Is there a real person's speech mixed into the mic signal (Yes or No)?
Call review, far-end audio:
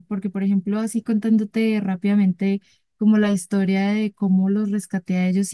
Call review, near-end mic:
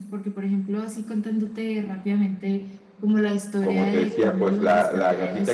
Yes